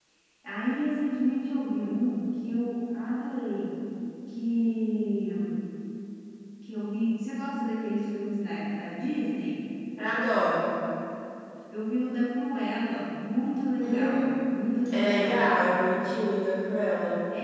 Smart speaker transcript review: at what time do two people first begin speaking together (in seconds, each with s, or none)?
13.8 s